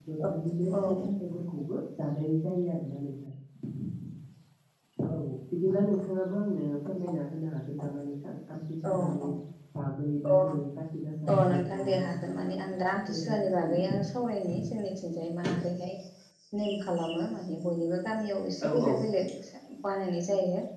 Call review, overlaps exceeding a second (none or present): present